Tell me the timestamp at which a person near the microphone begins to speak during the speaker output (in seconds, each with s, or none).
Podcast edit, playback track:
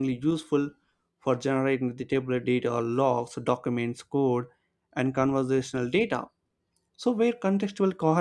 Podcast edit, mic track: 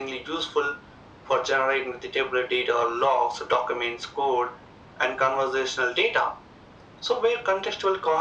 none